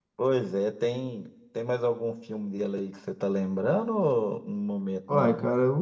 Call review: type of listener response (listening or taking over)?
taking over